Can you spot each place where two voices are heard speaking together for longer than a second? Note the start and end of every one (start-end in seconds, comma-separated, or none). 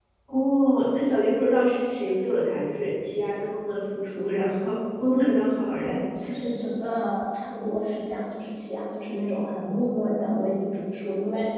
none